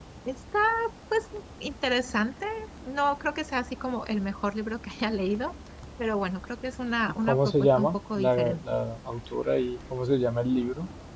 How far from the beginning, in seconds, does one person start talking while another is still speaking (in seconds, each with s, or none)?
7.2 s